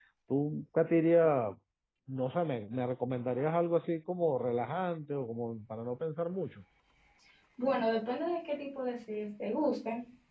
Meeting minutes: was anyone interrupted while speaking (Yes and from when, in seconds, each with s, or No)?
No